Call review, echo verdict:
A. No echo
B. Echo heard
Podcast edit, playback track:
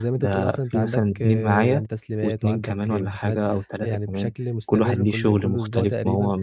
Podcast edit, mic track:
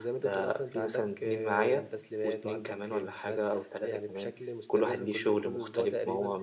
B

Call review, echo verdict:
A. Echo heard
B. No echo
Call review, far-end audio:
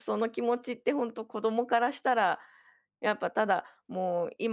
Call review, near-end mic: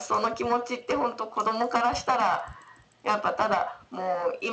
A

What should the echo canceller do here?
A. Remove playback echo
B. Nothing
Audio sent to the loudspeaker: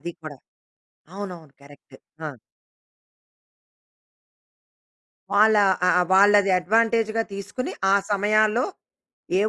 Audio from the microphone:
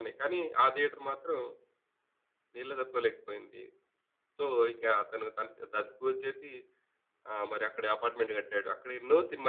B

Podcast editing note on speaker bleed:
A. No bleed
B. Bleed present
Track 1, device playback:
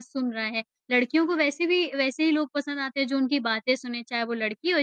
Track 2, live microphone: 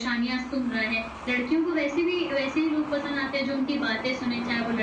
B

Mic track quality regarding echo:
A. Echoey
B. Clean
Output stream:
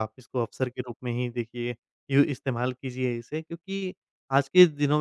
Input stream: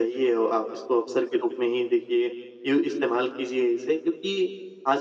A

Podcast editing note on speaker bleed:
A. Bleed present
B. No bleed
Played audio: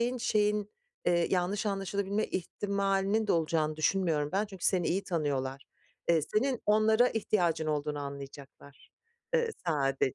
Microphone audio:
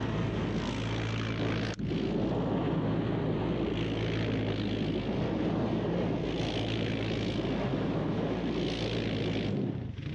B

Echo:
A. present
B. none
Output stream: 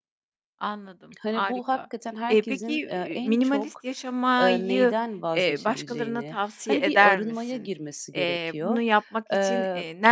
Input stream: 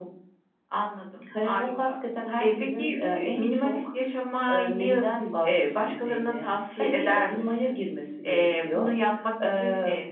A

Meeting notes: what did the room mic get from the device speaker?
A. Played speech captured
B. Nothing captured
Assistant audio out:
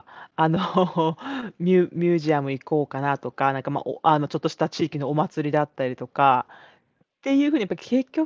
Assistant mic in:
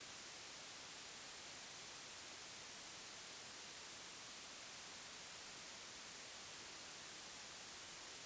B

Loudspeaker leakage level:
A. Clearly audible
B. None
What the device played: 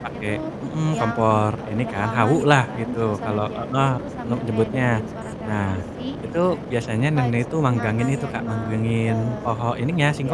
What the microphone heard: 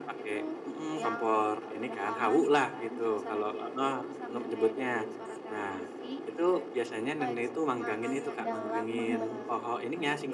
A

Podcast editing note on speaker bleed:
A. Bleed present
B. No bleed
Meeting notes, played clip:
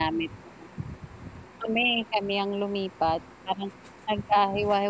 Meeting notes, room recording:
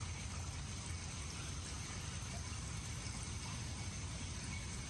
B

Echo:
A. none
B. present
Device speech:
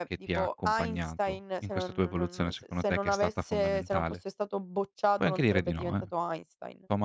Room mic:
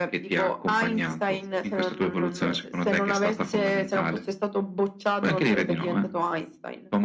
B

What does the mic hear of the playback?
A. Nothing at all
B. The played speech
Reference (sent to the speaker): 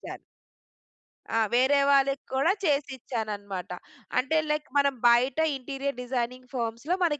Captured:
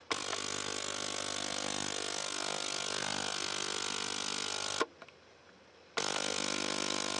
A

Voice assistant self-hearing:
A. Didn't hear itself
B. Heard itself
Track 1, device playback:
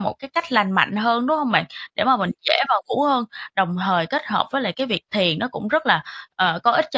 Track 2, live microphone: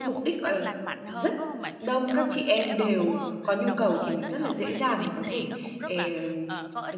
B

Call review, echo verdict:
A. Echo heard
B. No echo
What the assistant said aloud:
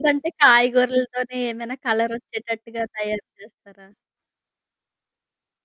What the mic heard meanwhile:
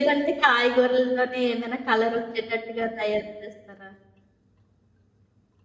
A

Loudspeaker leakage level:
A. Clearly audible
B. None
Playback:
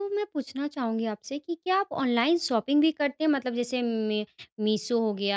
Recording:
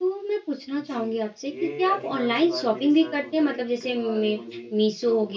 A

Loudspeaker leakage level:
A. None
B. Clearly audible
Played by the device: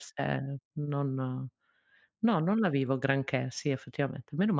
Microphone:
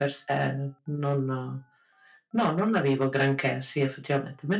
B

